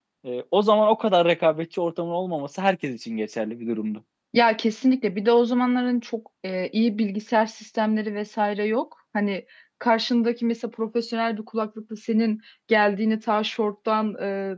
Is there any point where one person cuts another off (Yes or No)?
No